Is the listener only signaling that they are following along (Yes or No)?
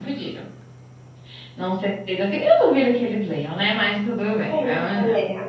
No